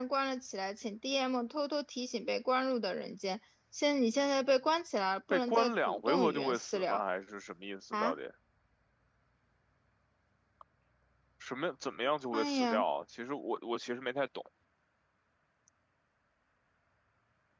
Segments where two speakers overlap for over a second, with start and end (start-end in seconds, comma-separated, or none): 5.3-7.0